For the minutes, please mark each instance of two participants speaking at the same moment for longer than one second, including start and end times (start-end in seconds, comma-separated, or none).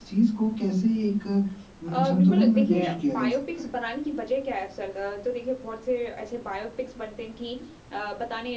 1.9-3.7